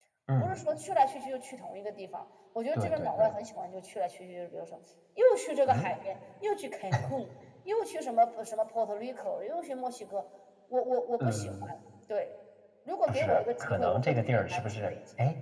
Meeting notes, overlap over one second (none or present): present